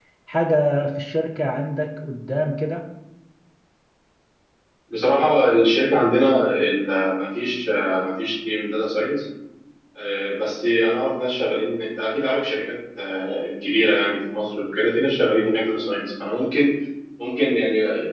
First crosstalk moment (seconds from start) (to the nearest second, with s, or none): none